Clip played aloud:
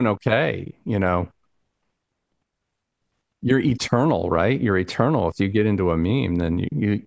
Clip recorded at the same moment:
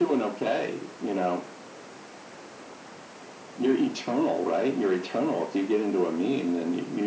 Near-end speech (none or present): none